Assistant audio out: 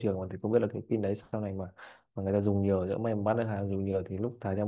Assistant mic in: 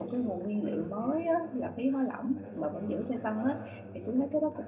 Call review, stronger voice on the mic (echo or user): user